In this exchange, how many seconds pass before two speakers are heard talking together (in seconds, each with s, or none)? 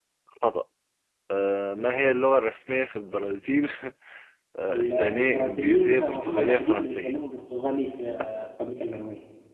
4.7 s